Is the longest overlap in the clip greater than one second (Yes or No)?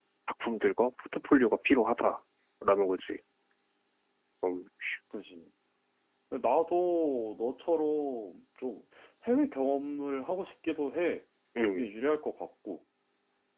No